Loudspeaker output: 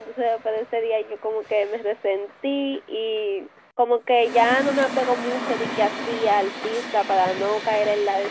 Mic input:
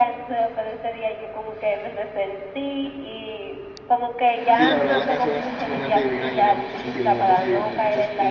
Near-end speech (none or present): present